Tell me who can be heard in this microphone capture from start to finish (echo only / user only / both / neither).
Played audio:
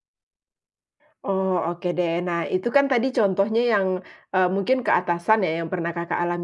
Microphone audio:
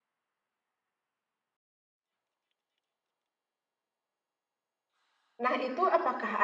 user only